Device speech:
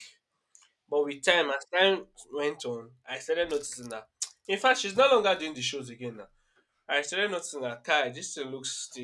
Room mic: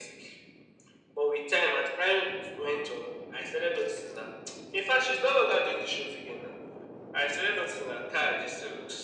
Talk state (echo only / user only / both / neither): echo only